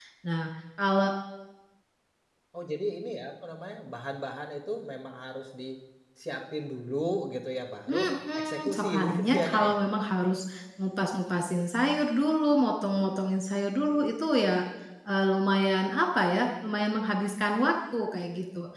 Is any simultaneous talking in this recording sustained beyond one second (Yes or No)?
Yes